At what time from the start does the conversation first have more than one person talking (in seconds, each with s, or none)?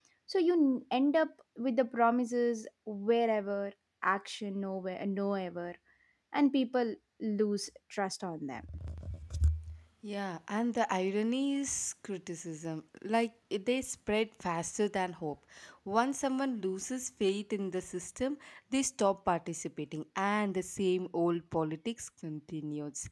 none